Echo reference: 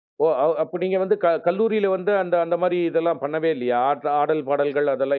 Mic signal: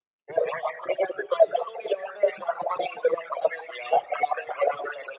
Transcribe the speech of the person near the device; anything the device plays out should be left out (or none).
none